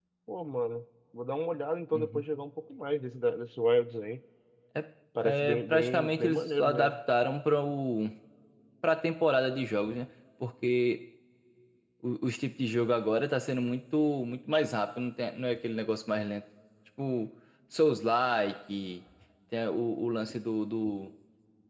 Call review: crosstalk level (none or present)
present